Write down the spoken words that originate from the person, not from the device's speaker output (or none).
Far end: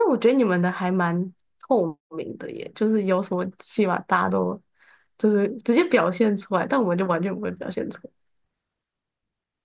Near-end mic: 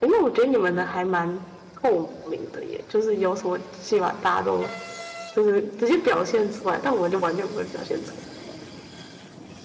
none